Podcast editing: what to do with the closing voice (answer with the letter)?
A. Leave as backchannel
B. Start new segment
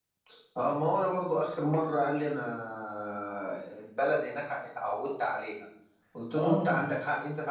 A